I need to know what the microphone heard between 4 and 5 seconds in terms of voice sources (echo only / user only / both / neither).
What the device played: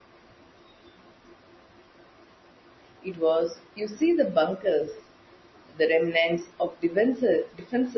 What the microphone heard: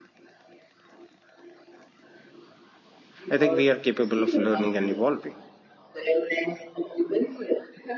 both